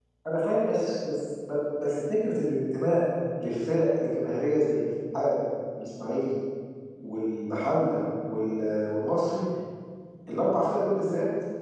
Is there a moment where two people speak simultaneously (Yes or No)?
No